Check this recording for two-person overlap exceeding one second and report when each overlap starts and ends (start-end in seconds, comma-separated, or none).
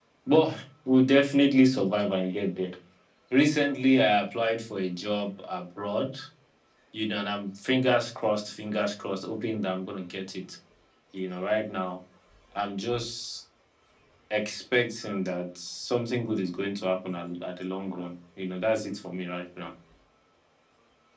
none